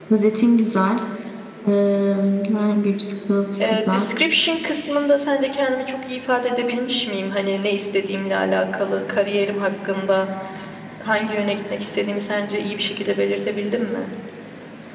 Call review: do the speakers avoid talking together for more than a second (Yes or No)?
Yes